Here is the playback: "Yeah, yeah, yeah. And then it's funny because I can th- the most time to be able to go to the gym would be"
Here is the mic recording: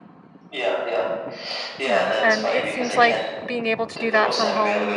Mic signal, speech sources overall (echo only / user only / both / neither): both